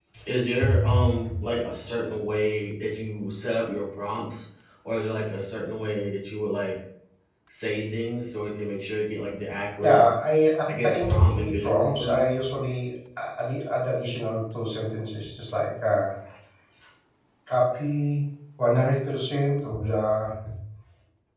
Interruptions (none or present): present